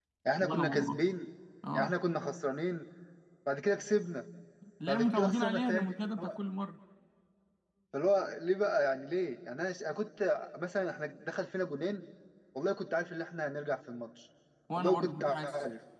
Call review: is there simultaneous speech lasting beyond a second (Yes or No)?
Yes